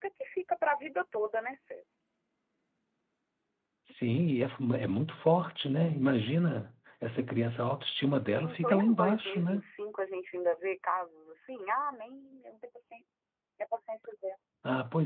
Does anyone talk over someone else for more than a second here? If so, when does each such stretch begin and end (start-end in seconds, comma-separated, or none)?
8.1-9.6